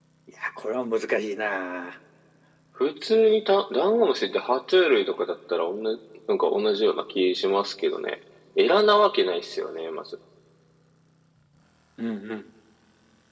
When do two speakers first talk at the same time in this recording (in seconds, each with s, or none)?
none